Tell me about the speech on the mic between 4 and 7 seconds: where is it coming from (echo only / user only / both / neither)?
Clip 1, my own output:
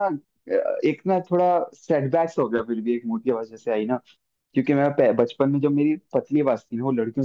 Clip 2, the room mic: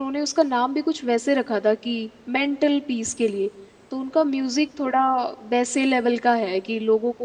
user only